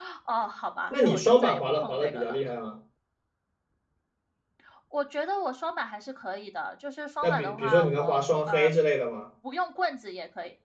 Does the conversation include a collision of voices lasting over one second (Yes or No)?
Yes